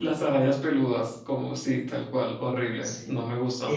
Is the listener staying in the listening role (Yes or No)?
No